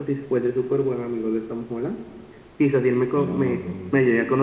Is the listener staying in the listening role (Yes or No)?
Yes